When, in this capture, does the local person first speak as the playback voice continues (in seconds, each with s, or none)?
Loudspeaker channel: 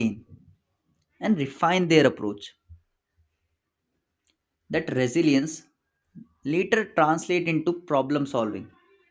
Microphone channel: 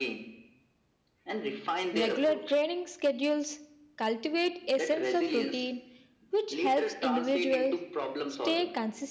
1.9 s